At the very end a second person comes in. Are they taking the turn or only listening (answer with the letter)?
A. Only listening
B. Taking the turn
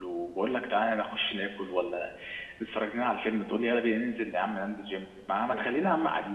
A